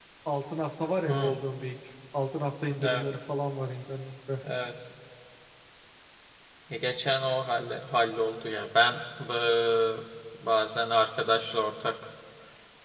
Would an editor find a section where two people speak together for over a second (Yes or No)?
No